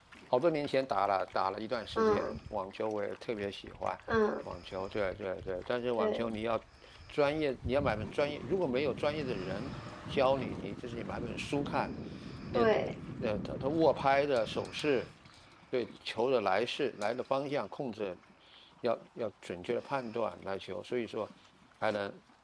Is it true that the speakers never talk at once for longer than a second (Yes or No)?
Yes